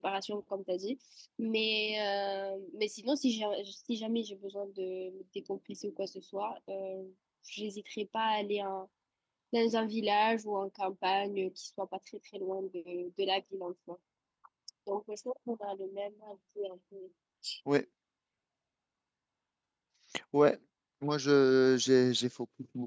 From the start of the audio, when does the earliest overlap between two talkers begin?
none

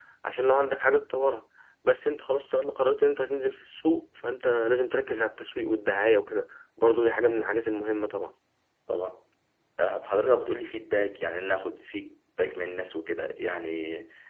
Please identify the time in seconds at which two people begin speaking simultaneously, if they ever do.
none

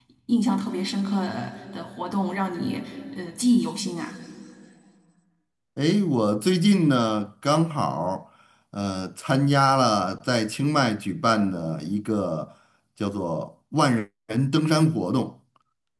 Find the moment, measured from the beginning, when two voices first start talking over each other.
none

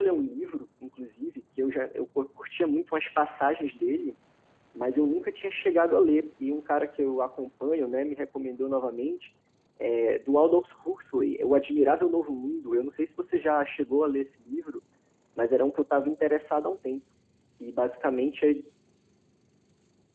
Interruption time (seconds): none

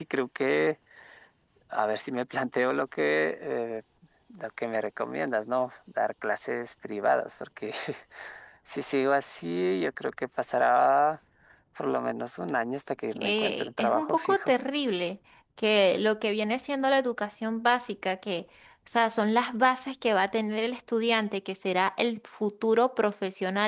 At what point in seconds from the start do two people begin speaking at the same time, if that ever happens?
13.1 s

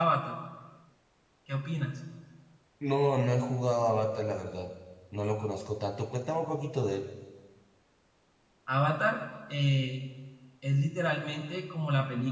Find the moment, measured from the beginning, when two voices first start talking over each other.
none

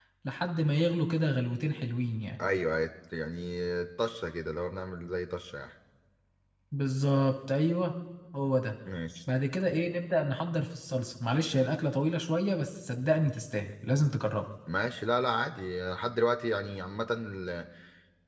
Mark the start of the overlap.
none

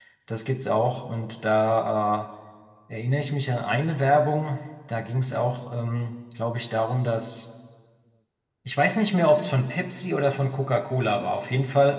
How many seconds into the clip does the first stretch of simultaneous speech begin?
none

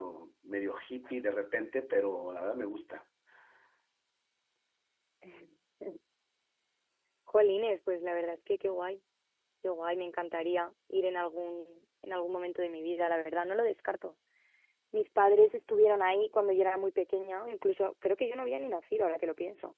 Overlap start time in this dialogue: none

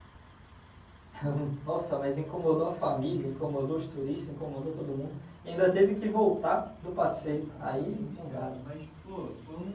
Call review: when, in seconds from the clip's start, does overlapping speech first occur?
7.2 s

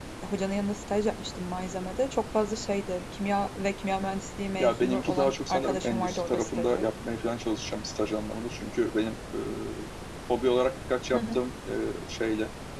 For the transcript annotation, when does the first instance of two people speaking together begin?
4.6 s

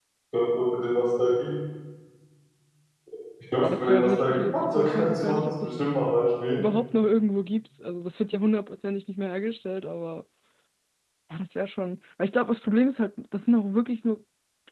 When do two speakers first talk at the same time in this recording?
3.6 s

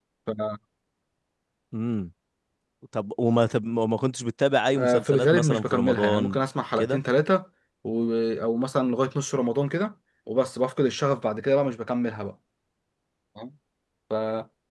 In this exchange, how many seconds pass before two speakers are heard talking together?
4.8 s

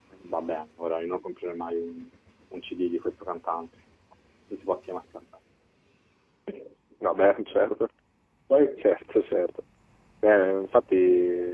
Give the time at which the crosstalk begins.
none

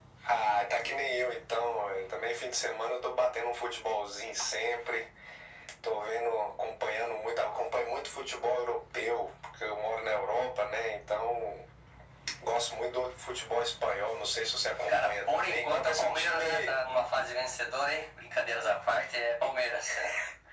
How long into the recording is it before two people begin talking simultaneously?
14.9 s

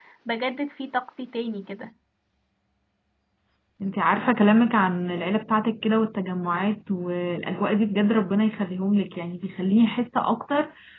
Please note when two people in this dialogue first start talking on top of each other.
none

